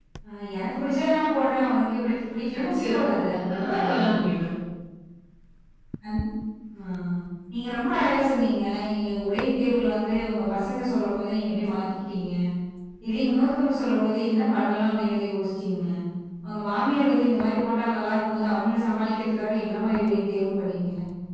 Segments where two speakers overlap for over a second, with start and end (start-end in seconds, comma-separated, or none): 2.7-4.2